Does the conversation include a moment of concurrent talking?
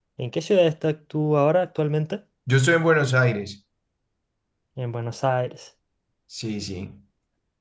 No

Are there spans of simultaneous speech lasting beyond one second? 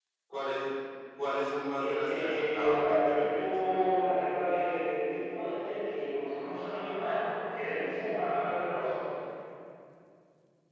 Yes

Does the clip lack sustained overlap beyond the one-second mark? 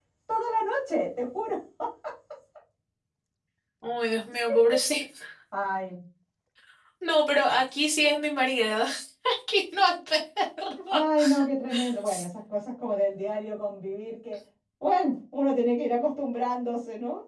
Yes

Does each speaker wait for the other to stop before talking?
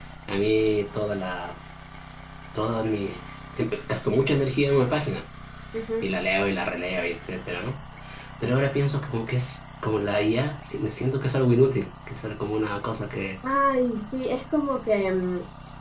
Yes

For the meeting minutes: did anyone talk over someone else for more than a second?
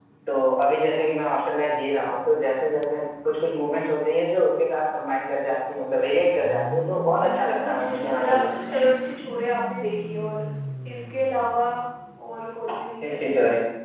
Yes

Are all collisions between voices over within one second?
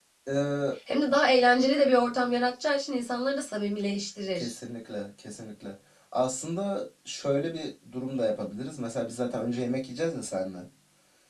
Yes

